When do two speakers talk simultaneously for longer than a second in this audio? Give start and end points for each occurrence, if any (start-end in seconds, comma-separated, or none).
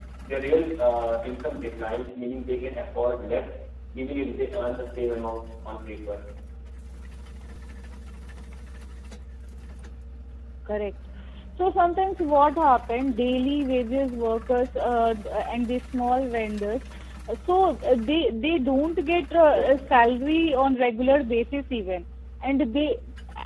none